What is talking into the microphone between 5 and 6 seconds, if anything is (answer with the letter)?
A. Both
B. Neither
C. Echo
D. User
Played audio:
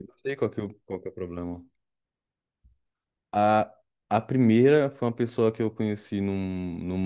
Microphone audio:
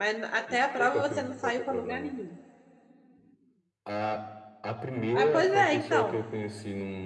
A